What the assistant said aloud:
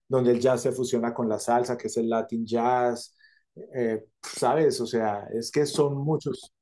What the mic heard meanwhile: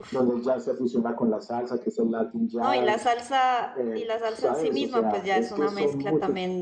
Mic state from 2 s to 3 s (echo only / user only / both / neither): both